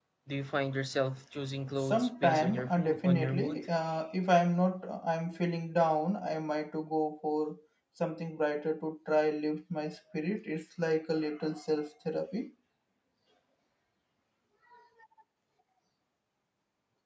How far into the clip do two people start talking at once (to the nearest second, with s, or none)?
2 s